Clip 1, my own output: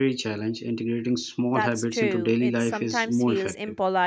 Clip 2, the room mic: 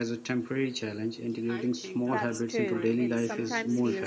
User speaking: Yes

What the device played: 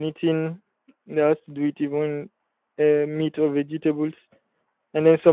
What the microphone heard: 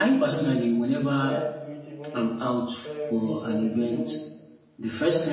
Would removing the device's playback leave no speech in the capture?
No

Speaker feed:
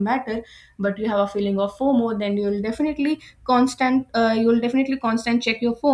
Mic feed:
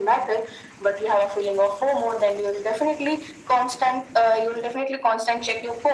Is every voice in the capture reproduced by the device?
Yes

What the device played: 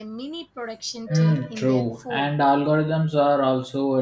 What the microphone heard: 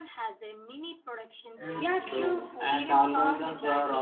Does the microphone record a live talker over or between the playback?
Yes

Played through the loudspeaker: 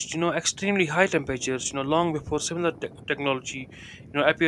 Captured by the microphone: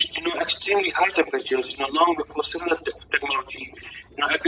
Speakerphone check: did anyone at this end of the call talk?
No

